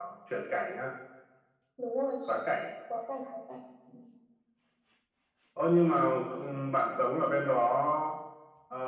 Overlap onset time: none

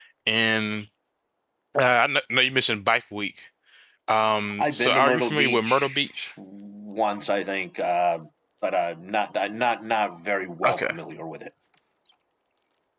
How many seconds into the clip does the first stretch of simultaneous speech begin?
4.6 s

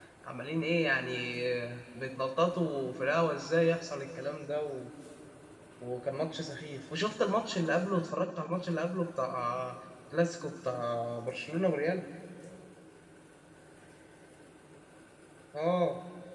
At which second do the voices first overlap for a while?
none

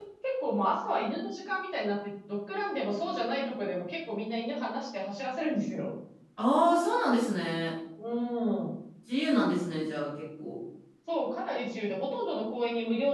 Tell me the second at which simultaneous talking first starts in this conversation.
none

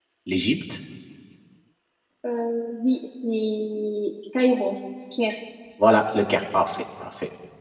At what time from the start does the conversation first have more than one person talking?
none

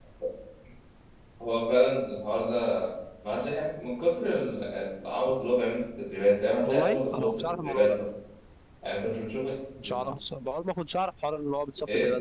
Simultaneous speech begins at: 6.7 s

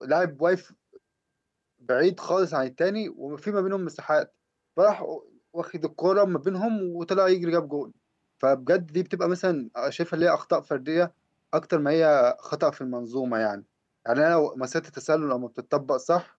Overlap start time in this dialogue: none

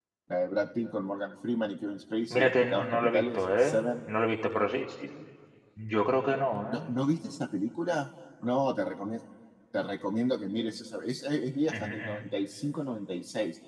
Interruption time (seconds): 2.3 s

